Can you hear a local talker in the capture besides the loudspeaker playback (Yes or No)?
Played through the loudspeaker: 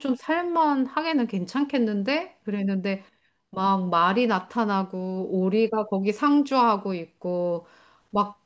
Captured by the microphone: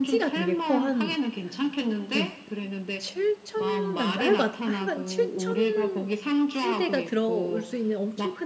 Yes